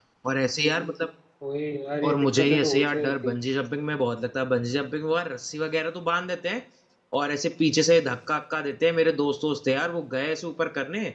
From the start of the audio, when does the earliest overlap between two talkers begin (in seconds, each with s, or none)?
2.1 s